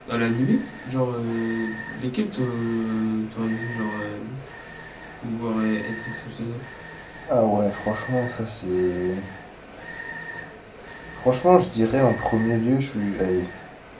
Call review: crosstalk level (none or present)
none